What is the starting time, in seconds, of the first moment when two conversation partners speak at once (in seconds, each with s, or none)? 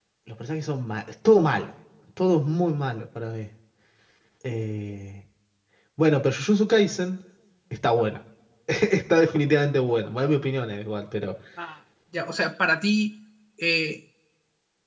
none